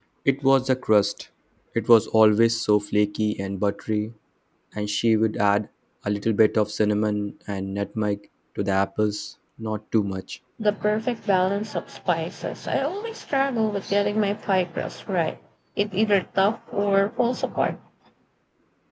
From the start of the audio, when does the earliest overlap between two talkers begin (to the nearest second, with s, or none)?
none